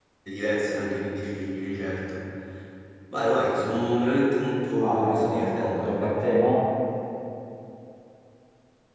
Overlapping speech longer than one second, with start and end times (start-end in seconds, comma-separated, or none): 4.8-6.1